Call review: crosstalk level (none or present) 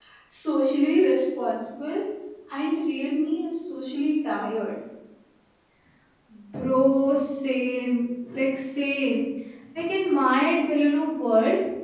none